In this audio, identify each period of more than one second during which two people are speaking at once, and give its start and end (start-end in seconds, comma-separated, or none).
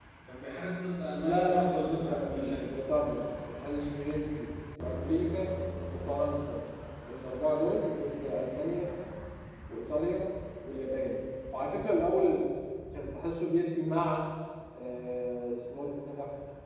1.2-2.7